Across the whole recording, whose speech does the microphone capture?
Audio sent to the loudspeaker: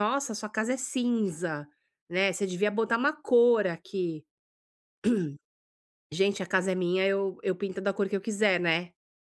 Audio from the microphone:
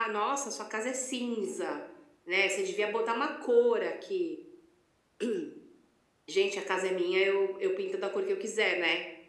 echo only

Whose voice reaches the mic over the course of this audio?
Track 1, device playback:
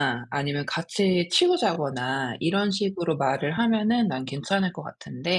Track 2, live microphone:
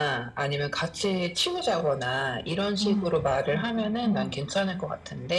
both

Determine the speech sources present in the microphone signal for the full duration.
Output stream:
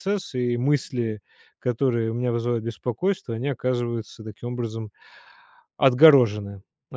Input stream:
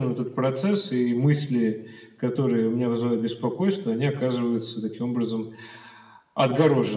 echo only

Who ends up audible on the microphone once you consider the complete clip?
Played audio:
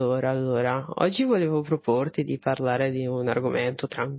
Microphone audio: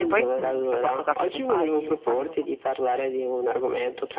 both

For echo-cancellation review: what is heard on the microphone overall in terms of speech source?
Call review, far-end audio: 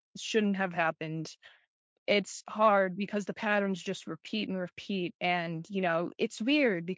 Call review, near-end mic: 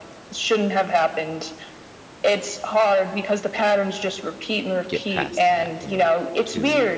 both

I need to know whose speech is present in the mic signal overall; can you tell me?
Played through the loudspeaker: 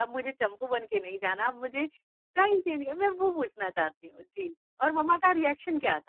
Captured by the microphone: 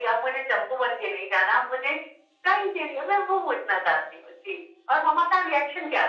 echo only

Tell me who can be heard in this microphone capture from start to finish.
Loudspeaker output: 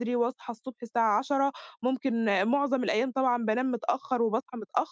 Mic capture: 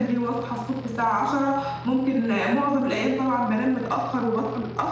echo only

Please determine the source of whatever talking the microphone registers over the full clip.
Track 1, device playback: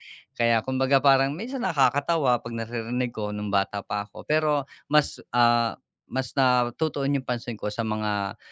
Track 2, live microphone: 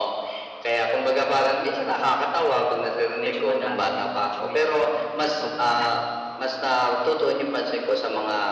both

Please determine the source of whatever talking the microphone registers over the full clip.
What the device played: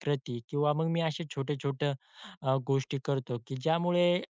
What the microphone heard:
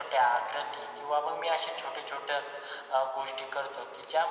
echo only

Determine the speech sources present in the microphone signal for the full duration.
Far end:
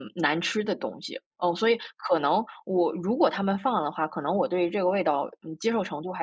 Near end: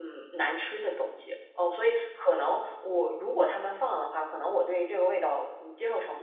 echo only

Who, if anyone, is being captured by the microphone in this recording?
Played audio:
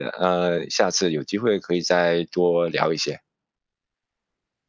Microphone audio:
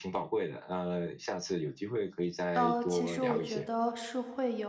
both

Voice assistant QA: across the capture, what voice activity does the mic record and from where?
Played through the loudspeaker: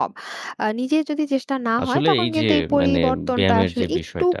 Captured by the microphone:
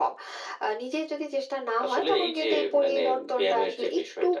echo only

